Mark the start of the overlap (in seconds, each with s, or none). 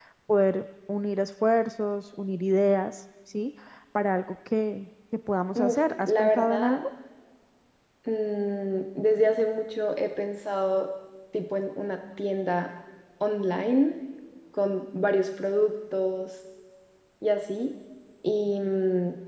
5.5 s